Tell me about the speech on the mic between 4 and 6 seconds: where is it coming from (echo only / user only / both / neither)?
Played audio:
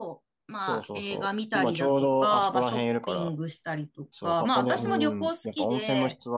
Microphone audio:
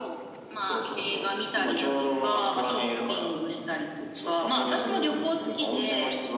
echo only